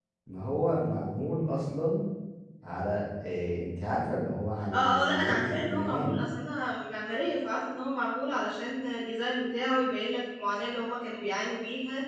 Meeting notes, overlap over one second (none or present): present